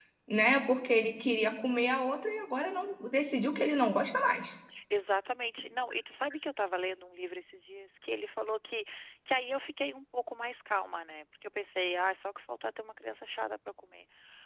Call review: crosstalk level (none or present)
none